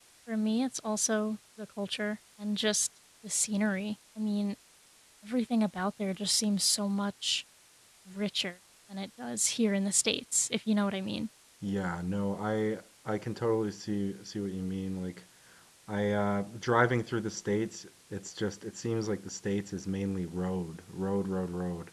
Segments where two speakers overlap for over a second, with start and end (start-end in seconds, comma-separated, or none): none